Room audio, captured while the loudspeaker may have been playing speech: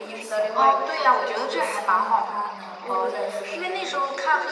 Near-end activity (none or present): present